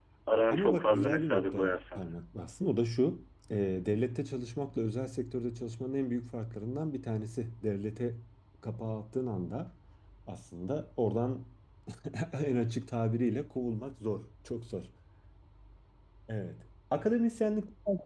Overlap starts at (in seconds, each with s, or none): 0.5 s